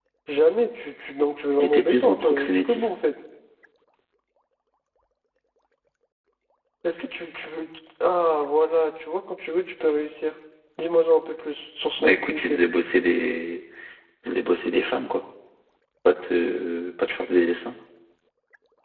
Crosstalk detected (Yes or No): Yes